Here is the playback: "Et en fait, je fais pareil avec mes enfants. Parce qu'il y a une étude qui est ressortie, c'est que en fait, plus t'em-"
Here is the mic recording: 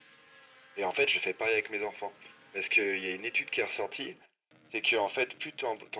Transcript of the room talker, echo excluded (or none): none